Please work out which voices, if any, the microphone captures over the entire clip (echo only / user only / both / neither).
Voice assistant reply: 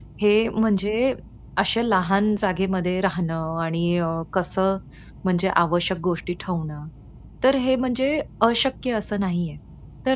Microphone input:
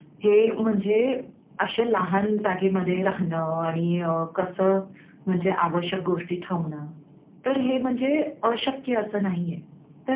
both